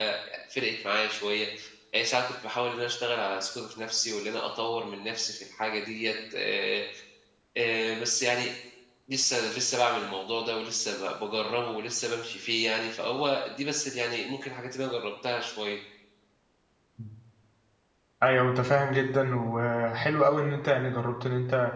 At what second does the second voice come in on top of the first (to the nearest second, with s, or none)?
none